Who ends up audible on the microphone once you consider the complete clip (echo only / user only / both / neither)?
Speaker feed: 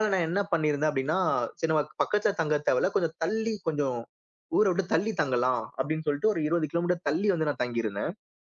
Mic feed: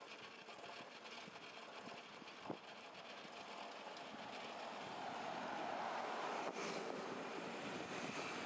neither